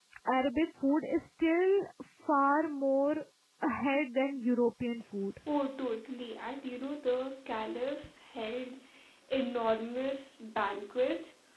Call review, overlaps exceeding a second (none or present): none